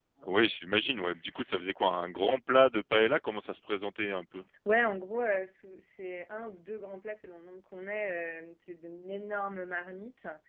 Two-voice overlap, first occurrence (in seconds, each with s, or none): none